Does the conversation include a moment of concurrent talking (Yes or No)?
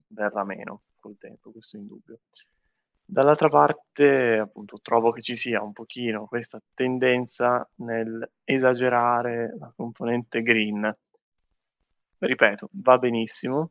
No